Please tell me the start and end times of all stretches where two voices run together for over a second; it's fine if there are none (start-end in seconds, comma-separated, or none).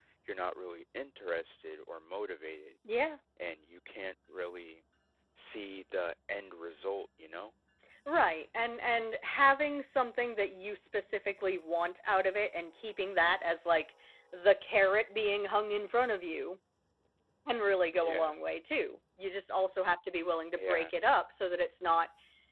none